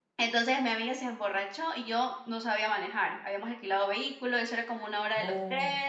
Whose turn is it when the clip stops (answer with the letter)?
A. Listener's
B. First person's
B